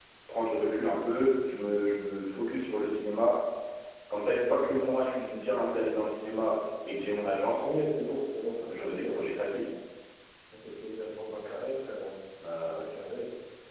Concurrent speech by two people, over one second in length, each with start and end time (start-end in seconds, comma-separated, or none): none